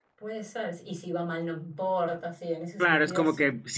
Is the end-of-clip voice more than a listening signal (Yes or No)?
Yes